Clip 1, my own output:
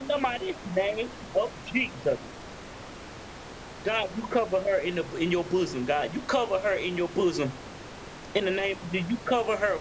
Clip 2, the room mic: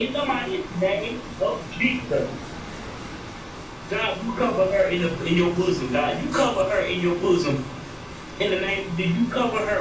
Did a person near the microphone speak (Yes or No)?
Yes